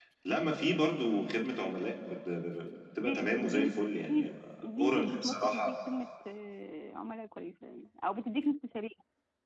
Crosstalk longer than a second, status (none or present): present